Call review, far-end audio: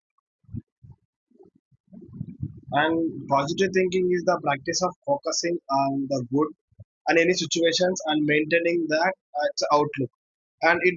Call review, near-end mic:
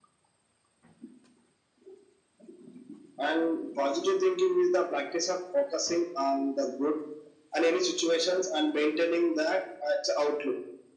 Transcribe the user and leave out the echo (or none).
none